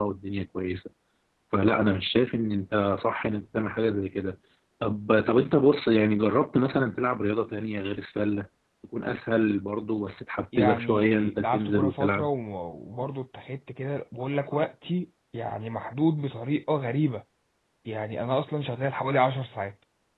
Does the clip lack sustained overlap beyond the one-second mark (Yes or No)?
No